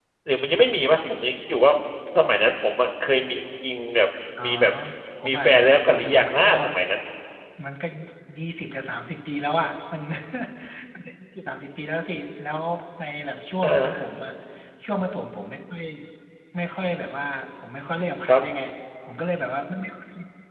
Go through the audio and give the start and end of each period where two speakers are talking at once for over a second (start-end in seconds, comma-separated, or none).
5.3-6.5